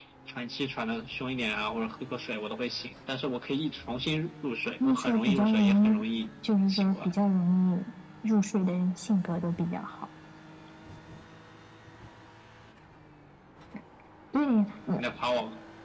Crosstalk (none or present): present